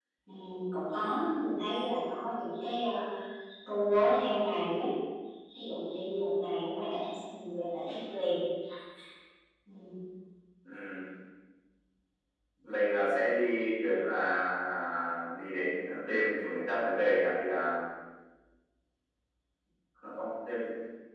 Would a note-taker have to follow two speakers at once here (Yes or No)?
No